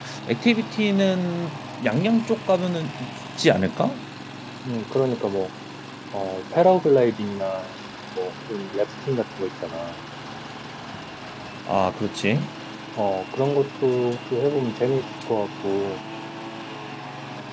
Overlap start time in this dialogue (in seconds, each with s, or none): none